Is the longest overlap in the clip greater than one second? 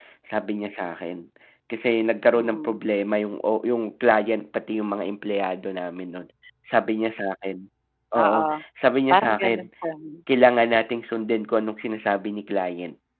No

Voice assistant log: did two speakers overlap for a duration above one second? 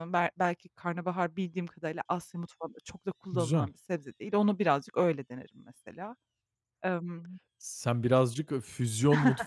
No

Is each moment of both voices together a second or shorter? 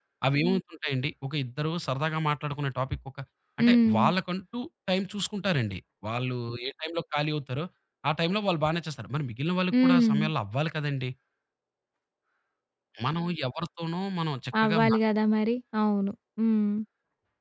Yes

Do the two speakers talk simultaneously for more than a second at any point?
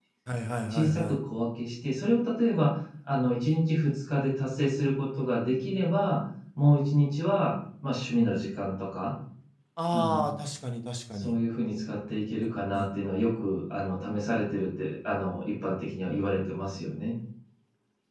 No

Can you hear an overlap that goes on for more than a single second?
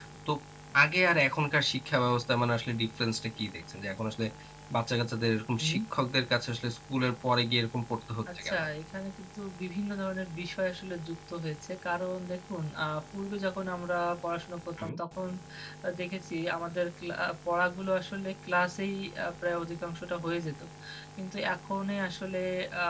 No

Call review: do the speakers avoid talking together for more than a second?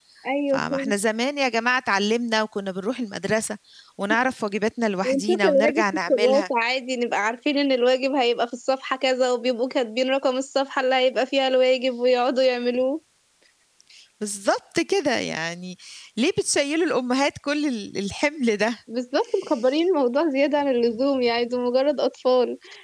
No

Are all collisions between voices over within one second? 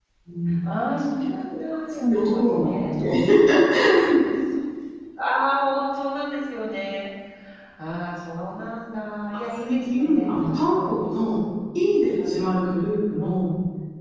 No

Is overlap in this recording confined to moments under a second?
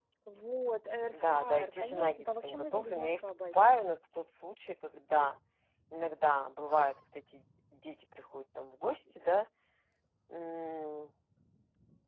No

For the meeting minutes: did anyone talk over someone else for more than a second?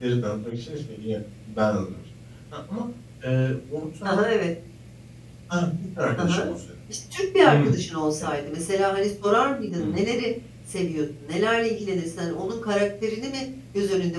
No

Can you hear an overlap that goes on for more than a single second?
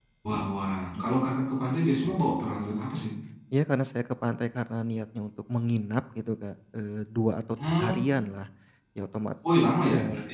No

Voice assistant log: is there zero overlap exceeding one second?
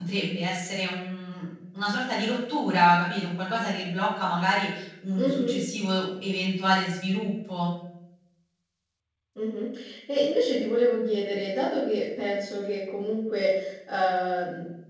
Yes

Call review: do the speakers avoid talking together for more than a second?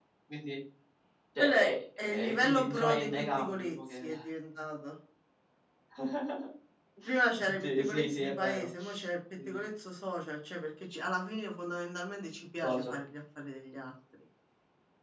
No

